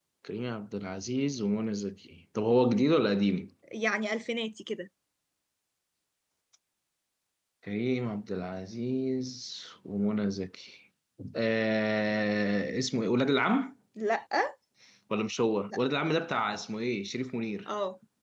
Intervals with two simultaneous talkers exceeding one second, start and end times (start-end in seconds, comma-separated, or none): none